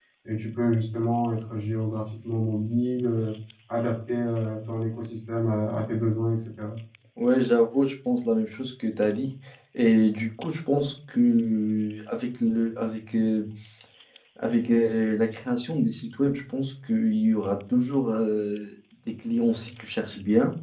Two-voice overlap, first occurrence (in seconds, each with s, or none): none